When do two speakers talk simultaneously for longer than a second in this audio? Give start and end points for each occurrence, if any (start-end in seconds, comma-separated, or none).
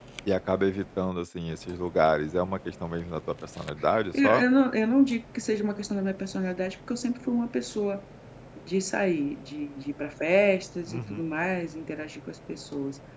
none